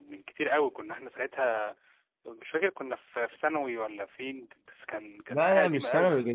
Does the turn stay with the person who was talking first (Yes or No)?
No